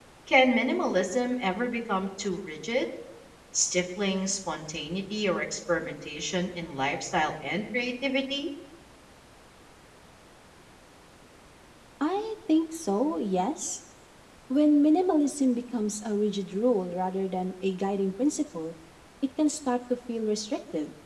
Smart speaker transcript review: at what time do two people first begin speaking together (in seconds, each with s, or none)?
none